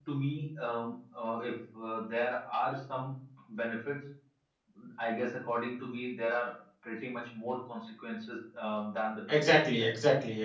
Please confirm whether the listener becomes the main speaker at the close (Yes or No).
Yes